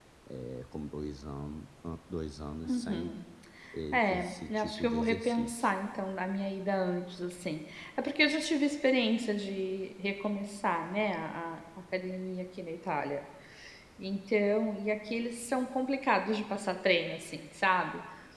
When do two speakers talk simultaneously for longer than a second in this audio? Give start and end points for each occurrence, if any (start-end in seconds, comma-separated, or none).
3.9-5.7